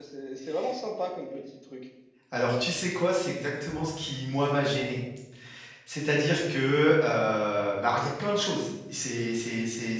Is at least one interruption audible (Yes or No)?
No